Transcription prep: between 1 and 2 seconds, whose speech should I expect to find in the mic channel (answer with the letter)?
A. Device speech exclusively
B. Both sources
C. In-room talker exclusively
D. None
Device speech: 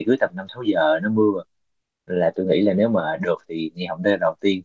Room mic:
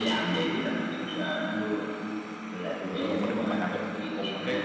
A